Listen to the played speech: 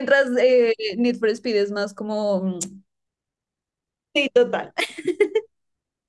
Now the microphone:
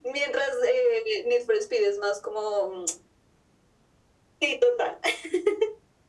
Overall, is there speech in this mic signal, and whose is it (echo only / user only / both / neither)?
echo only